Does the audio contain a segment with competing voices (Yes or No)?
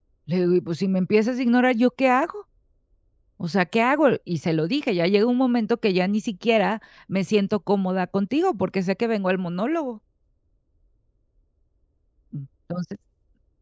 No